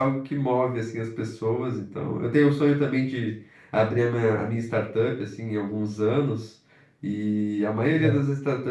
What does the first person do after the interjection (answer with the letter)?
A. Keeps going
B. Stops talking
A